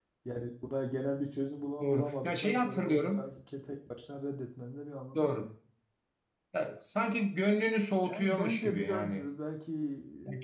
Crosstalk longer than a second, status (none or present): present